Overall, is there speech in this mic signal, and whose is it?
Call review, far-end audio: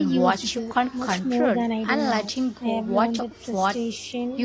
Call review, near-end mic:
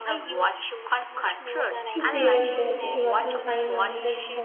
both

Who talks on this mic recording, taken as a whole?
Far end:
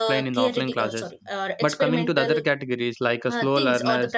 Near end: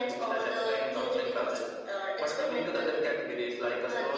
echo only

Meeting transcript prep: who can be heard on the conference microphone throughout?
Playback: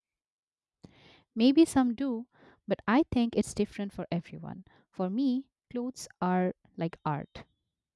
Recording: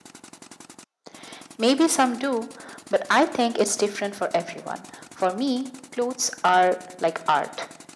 echo only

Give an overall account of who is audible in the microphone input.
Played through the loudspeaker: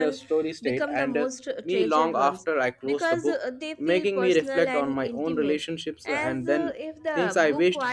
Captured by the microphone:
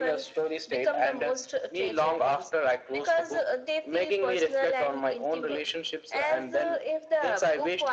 echo only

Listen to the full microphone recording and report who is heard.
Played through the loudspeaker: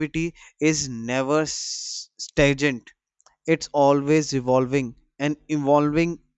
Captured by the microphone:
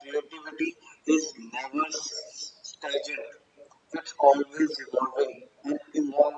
echo only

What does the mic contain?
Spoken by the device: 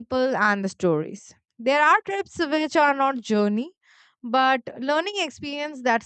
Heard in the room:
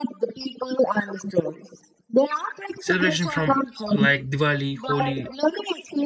both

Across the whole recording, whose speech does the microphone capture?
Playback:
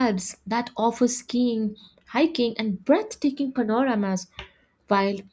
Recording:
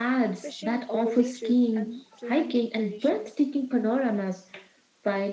both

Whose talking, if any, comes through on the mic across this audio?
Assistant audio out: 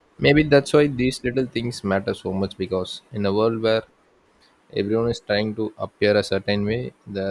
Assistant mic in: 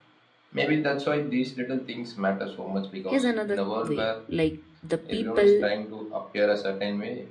both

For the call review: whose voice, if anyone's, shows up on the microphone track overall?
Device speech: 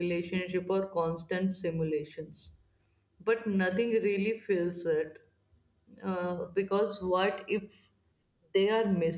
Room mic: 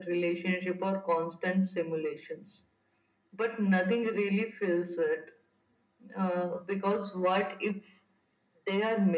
echo only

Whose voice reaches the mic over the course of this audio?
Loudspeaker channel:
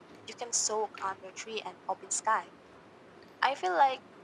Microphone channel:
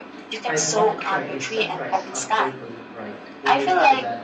both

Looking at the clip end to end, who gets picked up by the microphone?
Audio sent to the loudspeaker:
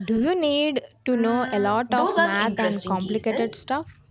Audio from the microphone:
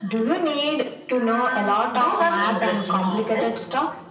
both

